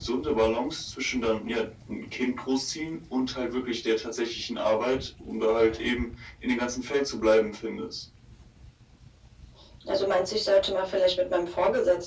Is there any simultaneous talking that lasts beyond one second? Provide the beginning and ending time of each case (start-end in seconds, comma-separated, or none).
none